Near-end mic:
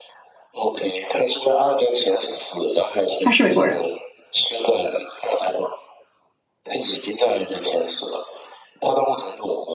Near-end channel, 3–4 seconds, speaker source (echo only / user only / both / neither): both